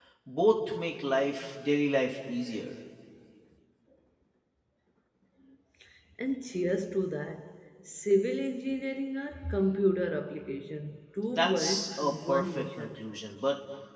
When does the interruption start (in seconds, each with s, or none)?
11.3 s